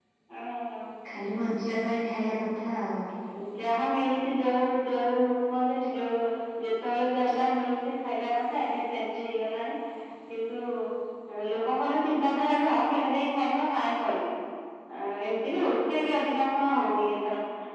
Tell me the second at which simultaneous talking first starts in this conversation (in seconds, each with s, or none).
none